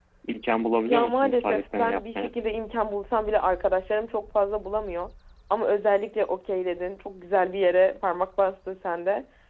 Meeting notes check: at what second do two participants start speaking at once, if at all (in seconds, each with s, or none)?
0.8 s